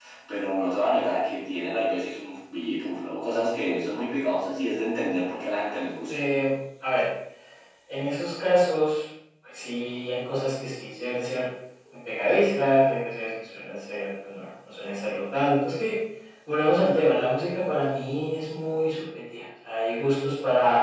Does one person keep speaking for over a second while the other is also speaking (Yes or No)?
No